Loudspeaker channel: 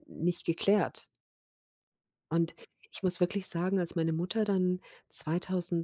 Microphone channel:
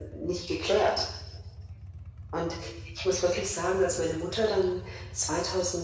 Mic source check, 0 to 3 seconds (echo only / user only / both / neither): echo only